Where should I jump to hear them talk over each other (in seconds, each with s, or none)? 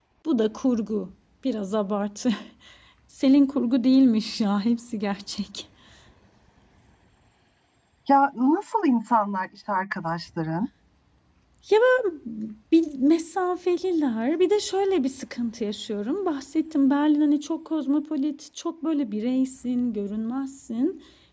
none